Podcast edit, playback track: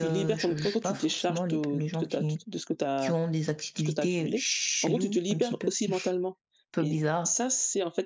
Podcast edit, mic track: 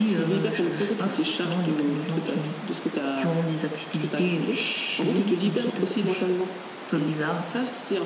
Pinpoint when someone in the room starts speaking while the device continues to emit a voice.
none

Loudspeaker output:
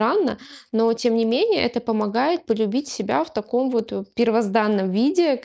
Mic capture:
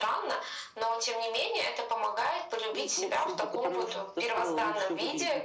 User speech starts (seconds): 2.7 s

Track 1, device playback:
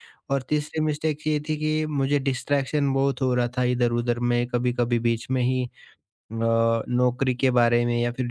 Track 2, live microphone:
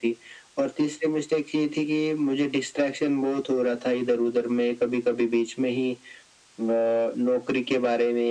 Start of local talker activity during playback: none

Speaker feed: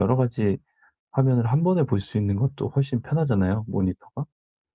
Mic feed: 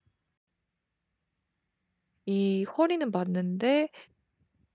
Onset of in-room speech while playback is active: 2.3 s

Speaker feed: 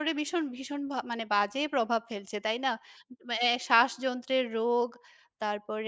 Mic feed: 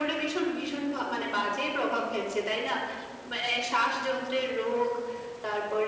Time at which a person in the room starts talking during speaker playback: none

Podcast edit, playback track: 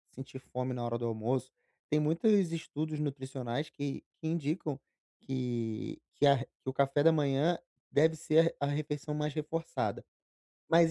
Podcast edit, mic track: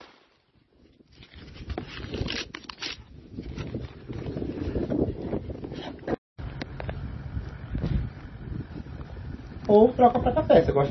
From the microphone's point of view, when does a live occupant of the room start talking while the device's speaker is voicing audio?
9.7 s

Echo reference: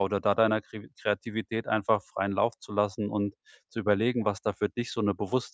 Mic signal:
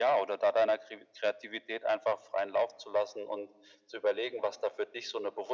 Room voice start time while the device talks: none

